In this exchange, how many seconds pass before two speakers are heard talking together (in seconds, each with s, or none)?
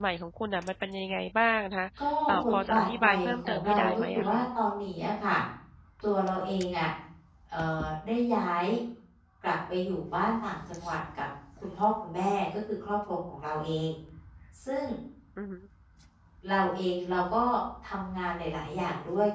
2.3 s